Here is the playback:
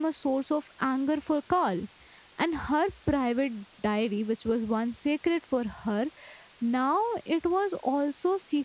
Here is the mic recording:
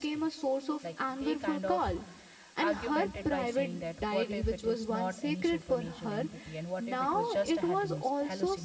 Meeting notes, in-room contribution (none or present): present